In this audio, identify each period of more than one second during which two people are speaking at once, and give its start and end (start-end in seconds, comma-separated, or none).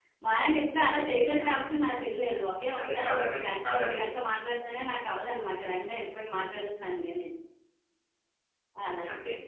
2.8-4.1